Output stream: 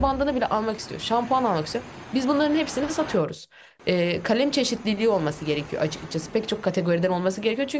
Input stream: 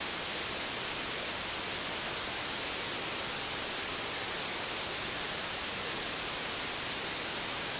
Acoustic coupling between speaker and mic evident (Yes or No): No